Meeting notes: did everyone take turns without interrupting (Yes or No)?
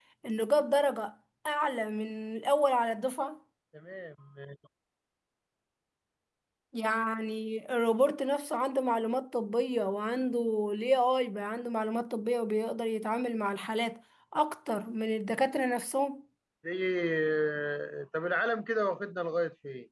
Yes